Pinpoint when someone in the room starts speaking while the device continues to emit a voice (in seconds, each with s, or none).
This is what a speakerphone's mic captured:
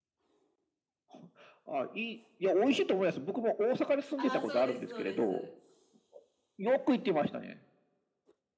4.1 s